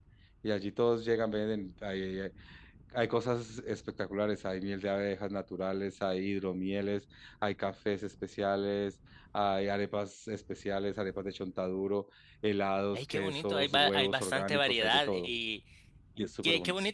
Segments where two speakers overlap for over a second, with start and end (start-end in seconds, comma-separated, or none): 12.9-15.3